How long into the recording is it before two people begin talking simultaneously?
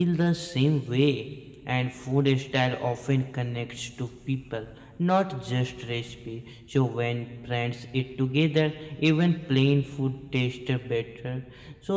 none

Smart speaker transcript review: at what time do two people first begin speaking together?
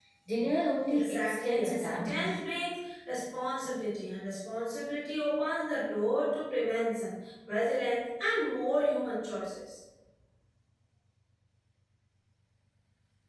0.9 s

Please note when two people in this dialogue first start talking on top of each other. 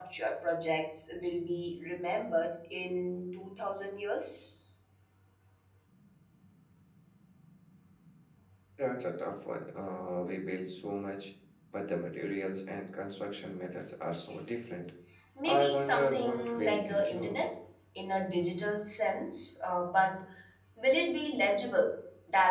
15.4 s

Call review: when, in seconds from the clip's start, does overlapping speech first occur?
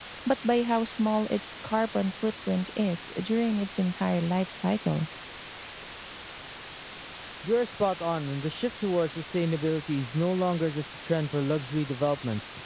none

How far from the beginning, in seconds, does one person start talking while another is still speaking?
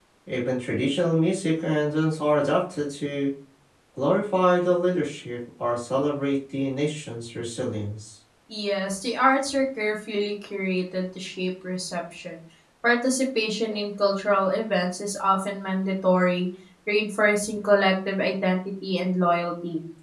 none

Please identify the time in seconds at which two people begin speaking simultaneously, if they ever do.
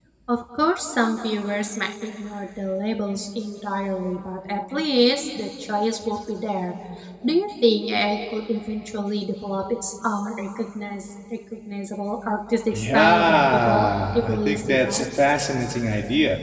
12.7 s

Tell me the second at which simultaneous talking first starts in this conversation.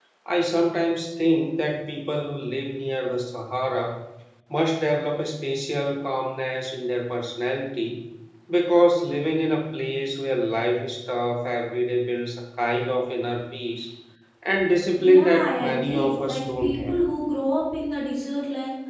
15.0 s

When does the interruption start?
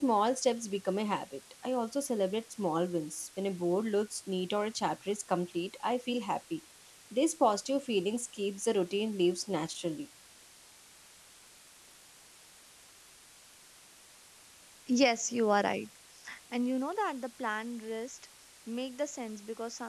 none

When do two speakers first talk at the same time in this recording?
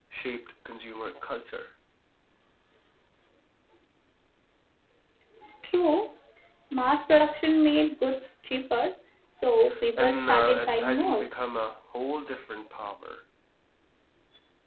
10.0 s

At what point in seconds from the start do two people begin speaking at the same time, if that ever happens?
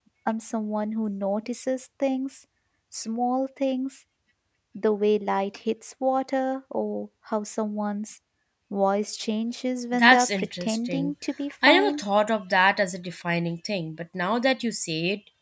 9.9 s

